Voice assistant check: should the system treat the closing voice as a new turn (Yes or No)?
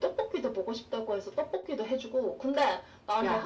No